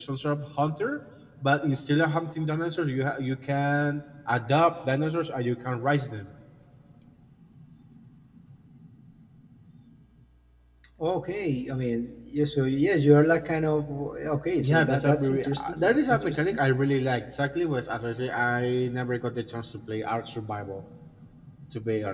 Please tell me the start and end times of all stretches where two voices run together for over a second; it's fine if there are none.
14.6-16.6

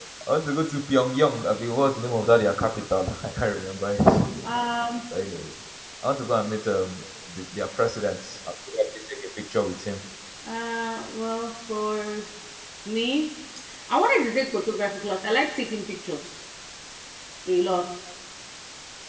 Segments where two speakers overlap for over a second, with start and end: none

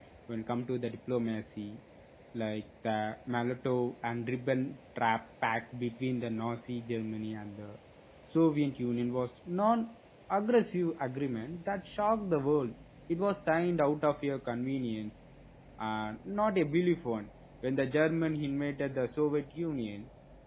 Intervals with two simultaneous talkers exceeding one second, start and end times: none

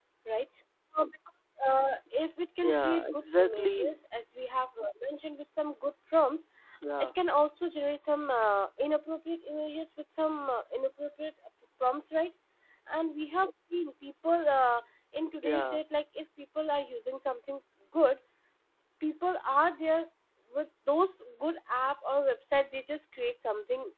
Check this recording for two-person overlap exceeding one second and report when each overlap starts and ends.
2.6-4.0

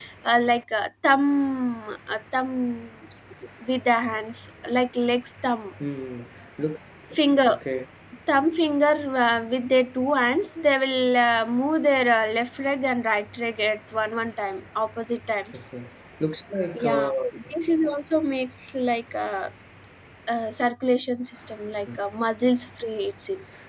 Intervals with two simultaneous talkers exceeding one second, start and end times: none

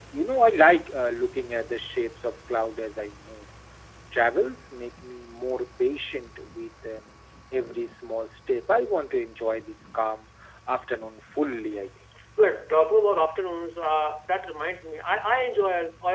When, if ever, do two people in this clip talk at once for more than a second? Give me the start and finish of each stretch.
none

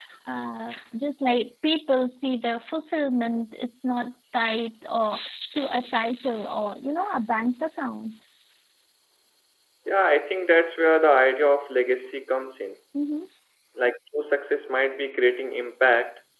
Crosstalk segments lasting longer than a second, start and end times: none

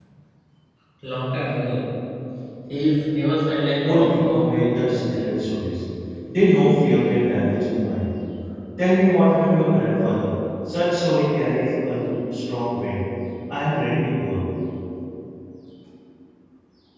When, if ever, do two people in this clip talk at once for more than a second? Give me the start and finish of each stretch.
3.9-5.4

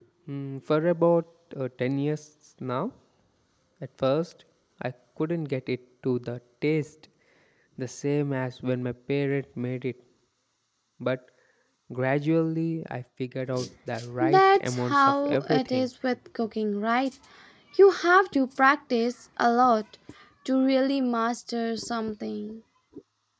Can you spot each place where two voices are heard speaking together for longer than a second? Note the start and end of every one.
14.2-15.9

